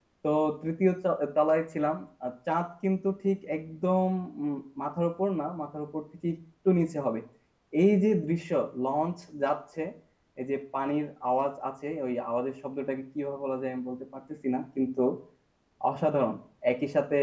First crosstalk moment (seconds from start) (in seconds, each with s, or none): none